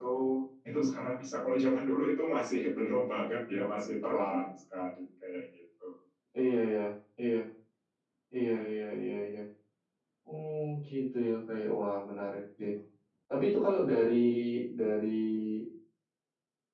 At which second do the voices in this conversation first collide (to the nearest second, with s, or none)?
none